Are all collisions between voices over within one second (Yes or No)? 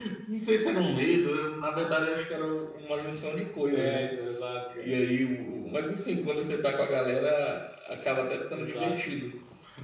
Yes